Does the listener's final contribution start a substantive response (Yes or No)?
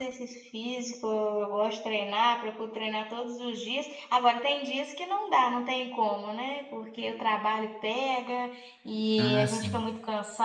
No